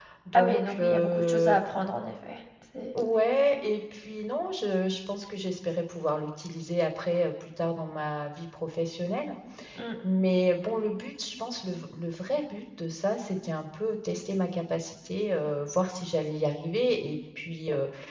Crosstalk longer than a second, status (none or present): present